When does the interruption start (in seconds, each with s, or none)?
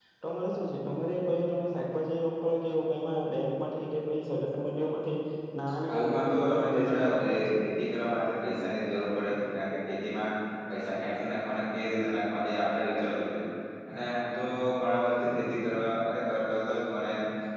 5.9 s